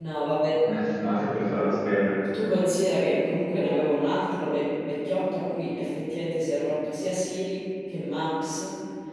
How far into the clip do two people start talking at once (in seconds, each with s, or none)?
none